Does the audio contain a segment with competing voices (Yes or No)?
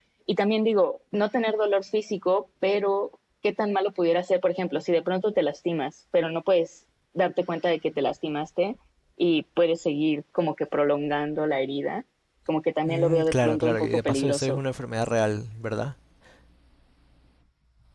Yes